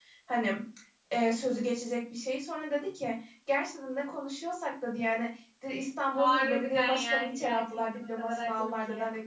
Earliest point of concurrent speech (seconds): 6.2 s

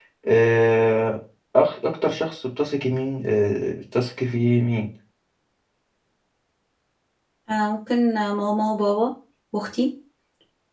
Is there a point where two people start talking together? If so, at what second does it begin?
none

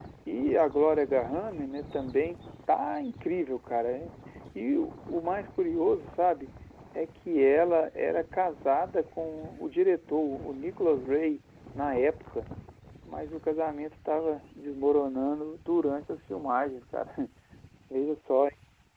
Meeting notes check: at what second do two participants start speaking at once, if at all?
none

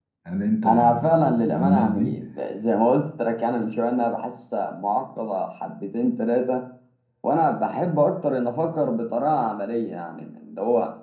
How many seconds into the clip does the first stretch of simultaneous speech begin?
0.7 s

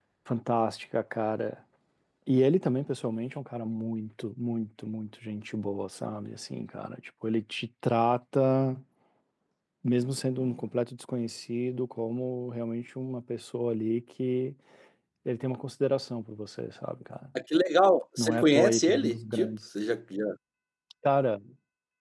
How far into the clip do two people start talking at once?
18.2 s

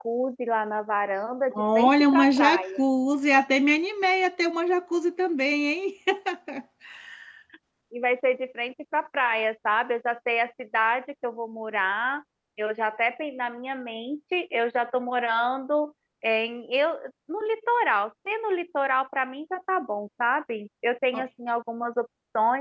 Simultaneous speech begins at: 1.5 s

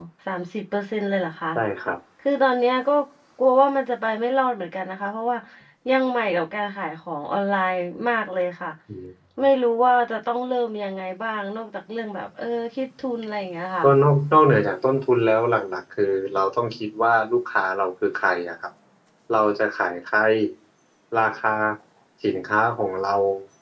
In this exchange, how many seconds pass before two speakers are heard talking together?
none

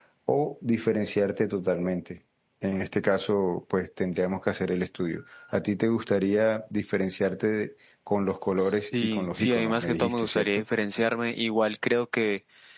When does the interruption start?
8.6 s

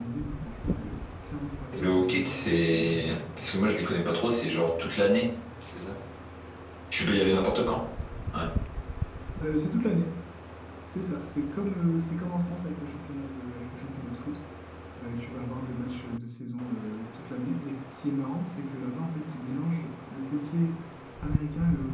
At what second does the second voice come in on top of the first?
1.7 s

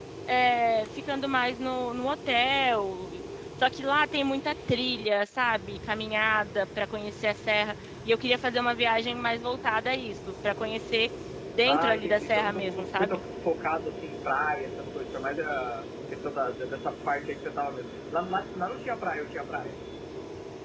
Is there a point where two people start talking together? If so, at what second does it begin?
11.7 s

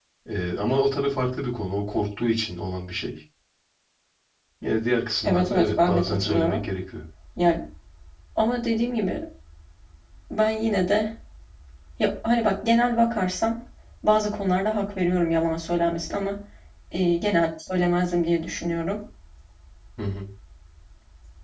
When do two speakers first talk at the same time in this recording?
5.2 s

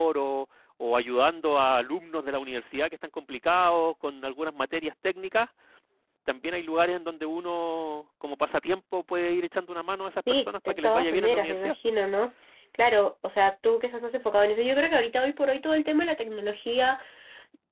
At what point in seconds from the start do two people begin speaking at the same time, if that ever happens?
10.3 s

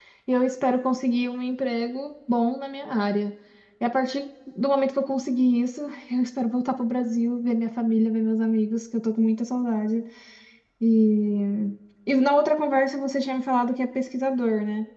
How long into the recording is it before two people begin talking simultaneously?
none

